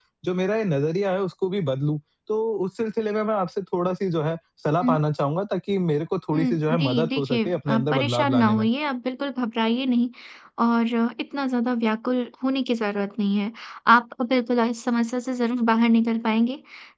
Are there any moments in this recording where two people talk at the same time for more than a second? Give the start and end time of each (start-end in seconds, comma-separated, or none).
6.3-8.5